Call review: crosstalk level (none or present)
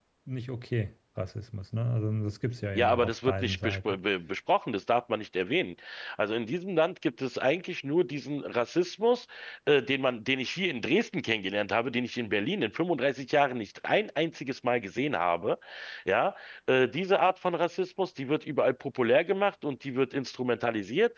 present